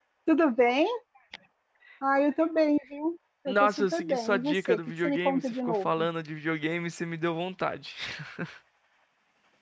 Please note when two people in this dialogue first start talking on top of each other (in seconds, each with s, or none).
3.5 s